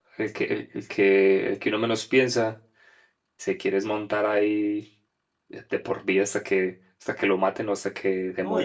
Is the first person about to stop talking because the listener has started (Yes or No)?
Yes